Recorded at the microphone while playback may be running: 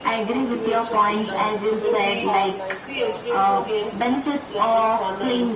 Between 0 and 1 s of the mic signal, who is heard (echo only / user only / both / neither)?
echo only